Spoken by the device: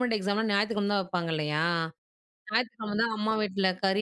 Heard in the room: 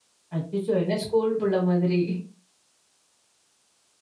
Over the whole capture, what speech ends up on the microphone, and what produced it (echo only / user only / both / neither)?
user only